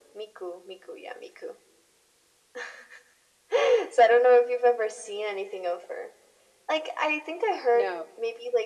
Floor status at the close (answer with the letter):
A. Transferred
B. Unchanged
B